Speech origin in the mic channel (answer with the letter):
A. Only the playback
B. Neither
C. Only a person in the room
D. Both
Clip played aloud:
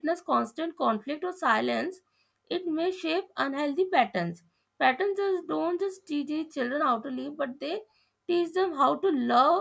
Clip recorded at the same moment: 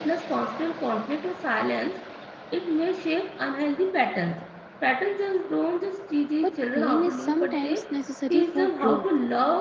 D